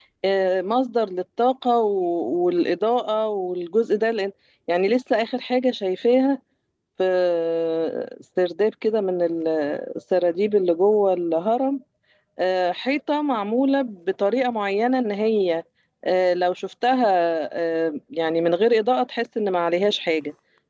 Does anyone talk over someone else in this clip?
No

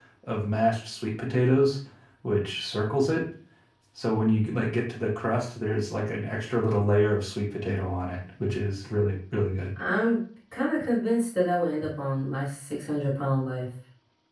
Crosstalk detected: No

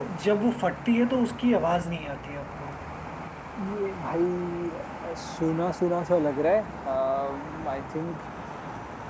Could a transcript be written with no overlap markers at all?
Yes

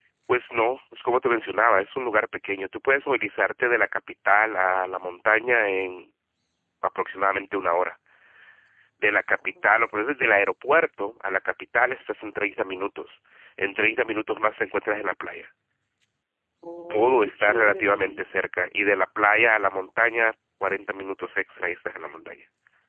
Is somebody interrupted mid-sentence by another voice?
Yes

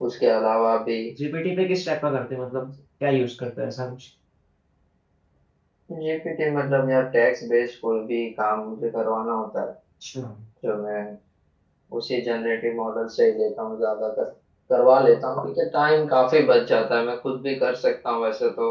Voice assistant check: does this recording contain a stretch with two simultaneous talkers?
No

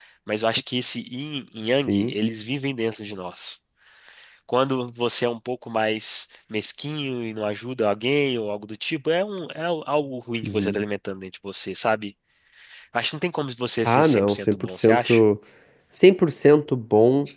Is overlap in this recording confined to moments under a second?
No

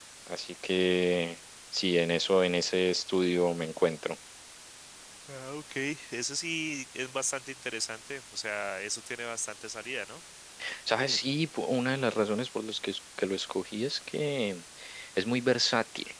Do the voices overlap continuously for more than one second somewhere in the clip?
No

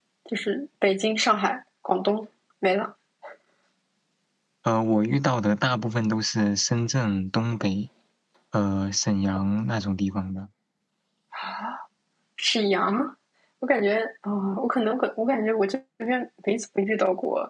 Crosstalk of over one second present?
No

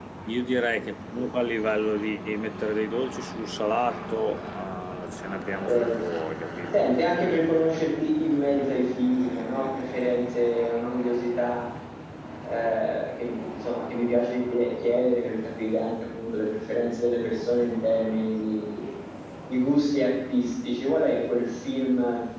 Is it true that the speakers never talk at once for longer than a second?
Yes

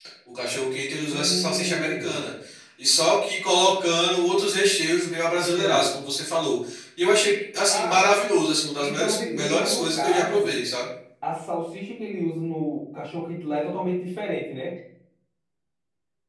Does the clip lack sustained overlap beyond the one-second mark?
No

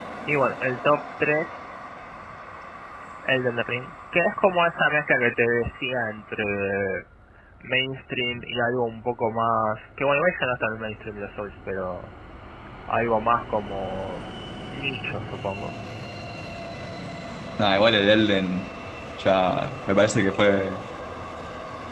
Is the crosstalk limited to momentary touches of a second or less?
Yes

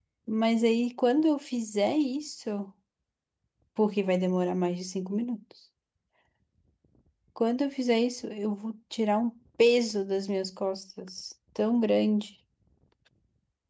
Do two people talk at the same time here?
No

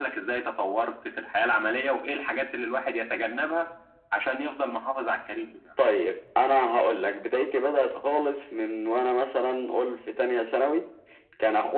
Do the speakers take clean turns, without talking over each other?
Yes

